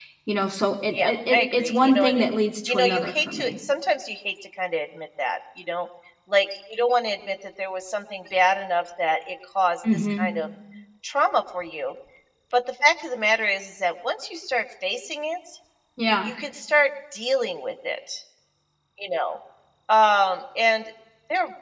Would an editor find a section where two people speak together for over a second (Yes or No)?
Yes